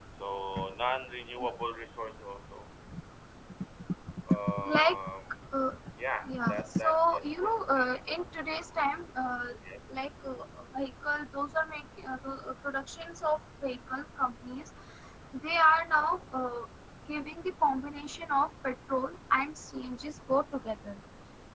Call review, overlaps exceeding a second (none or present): present